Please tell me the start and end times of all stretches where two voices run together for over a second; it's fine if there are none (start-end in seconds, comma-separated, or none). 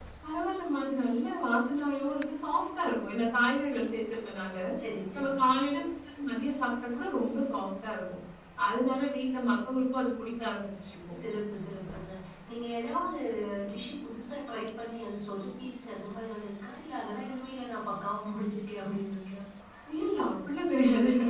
none